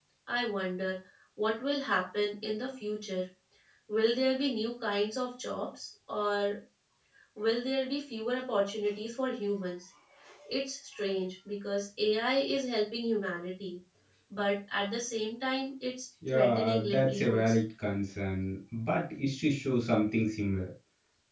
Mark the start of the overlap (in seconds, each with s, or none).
16.2 s